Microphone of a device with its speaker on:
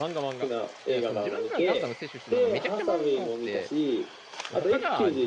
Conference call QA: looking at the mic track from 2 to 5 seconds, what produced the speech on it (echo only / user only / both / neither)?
both